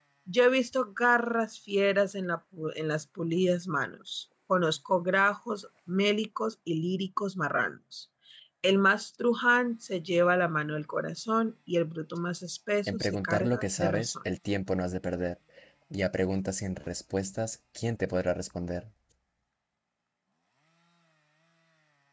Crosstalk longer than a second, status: present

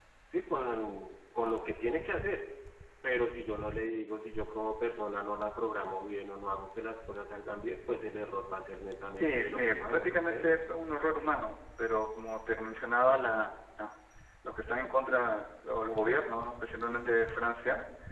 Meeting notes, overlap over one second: present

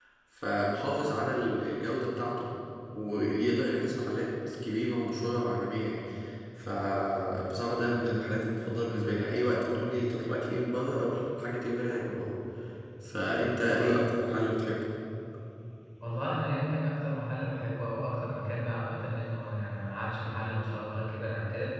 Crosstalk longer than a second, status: none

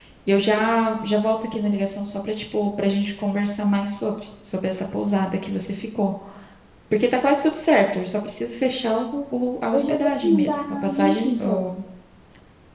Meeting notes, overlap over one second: present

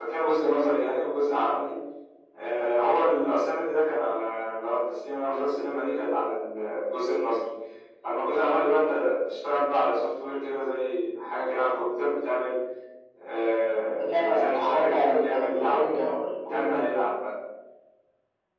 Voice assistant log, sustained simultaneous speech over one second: present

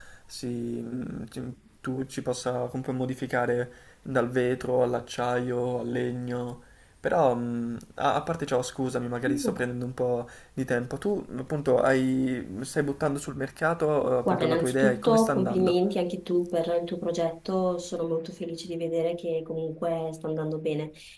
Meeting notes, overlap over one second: present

